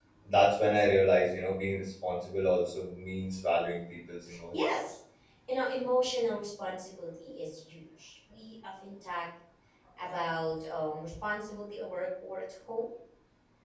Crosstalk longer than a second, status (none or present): none